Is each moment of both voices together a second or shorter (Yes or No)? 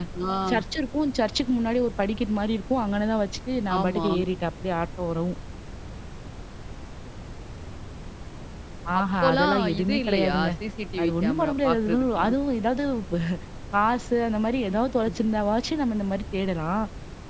No